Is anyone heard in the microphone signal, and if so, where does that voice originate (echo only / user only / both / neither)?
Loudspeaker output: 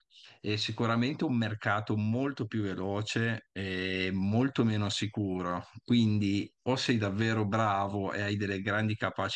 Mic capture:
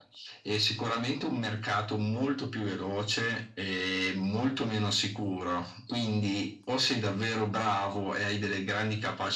echo only